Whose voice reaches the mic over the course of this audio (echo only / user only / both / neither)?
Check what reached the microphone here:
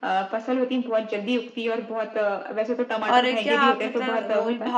both